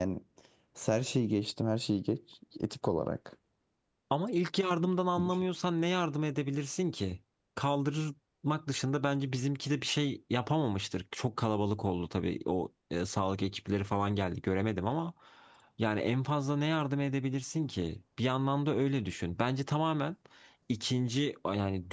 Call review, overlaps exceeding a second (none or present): none